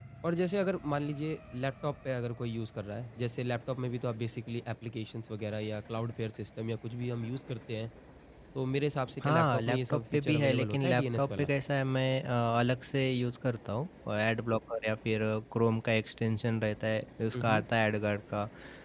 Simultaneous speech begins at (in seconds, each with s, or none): 9.2 s